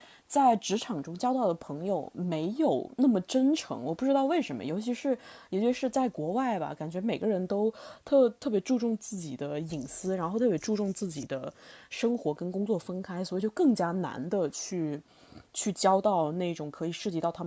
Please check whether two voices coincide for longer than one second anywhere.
No

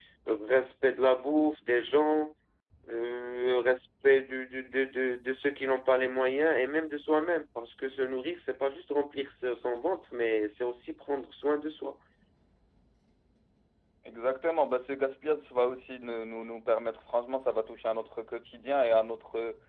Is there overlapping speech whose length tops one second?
No

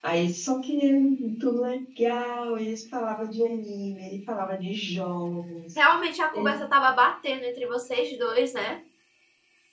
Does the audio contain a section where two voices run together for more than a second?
No

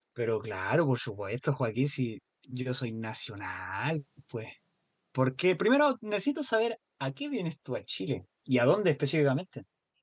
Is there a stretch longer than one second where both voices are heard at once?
No

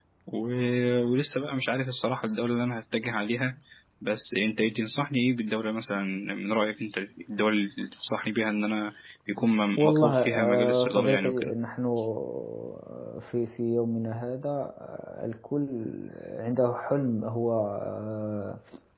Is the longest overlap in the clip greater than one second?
Yes, from 9.8 s

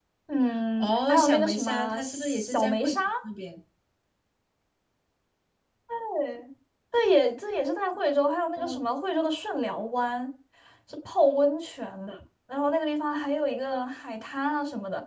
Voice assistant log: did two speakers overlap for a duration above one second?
Yes, from 0.8 s

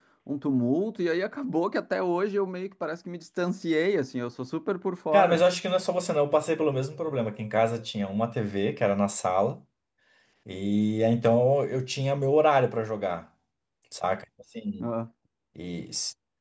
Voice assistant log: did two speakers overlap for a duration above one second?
No

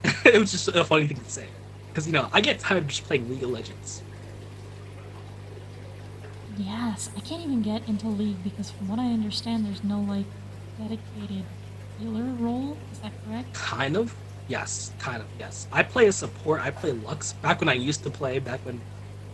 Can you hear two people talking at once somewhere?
No

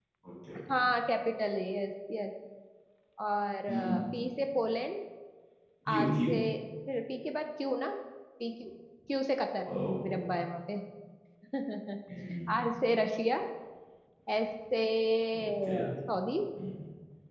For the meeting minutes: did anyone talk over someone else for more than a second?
No

